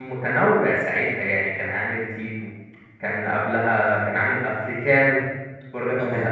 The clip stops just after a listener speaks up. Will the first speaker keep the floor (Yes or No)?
Yes